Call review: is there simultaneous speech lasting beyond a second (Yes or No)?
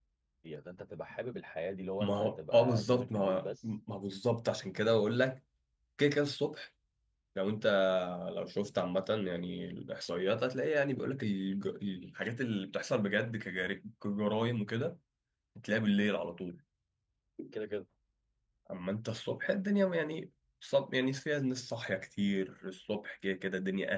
Yes